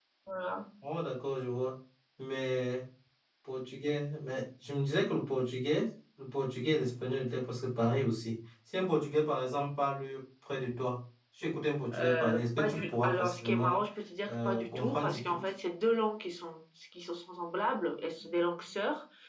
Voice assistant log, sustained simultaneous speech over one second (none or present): present